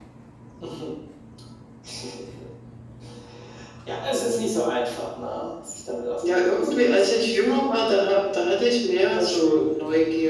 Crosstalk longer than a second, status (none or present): present